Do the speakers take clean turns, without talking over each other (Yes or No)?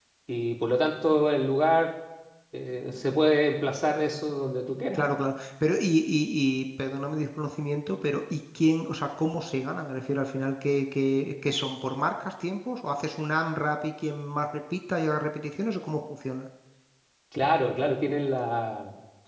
Yes